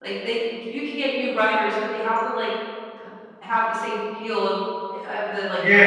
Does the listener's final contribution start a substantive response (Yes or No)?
Yes